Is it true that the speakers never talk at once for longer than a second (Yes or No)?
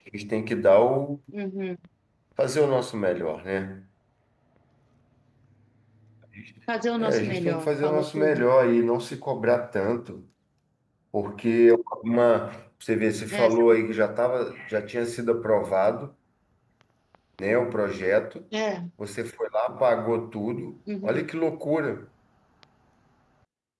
No